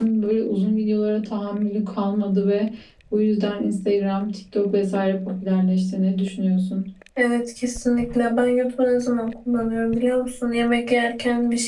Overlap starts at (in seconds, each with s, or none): none